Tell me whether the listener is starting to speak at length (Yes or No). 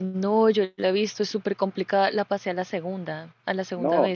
Yes